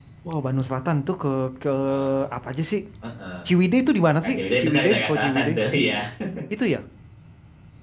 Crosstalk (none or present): present